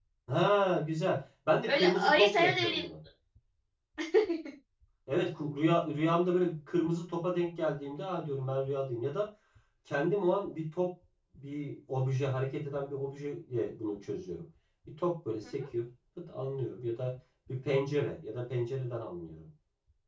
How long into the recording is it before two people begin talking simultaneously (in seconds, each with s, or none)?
1.7 s